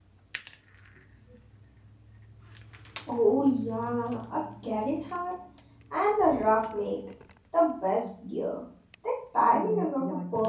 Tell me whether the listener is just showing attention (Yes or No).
No